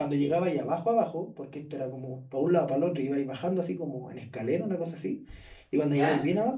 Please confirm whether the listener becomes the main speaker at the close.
No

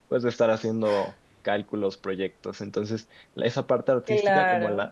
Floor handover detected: No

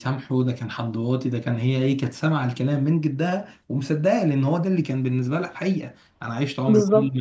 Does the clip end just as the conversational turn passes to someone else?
No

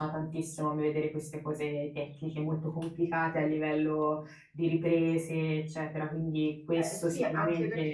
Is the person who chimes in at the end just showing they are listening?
No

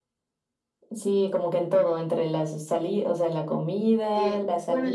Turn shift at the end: Yes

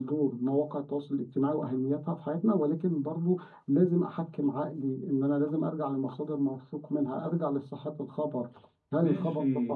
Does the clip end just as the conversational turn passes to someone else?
Yes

